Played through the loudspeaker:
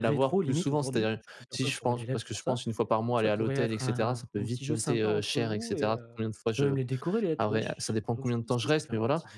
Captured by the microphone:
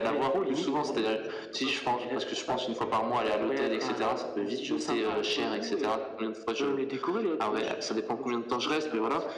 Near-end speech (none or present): none